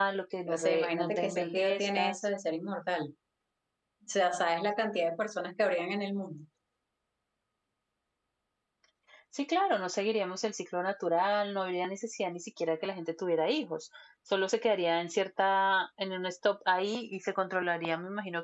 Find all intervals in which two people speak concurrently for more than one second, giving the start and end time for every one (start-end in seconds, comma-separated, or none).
0.5-2.2